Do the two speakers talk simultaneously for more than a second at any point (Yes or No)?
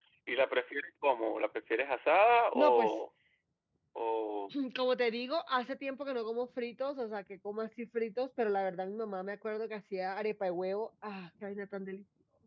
No